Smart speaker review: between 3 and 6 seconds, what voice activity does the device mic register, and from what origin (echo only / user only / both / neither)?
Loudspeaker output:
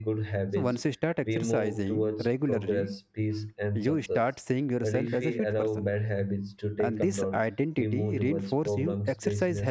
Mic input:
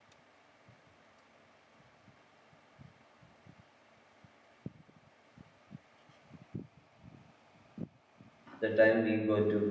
neither